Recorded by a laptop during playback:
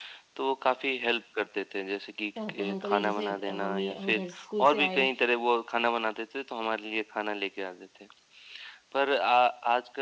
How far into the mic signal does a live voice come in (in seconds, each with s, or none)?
2.4 s